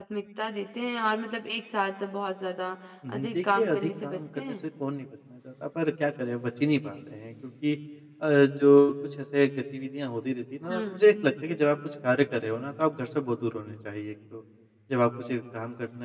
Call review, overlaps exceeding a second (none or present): present